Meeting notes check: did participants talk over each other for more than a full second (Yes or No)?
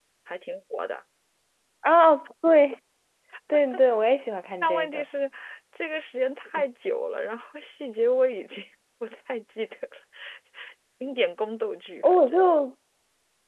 No